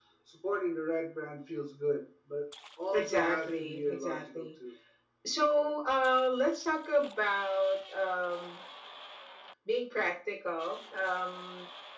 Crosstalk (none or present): present